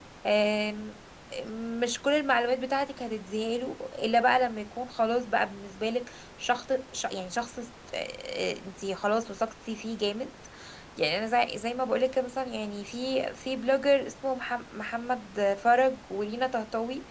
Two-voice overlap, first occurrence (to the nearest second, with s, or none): none